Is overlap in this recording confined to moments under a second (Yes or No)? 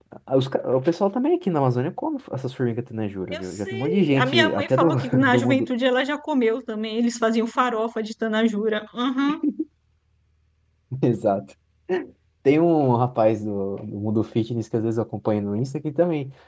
No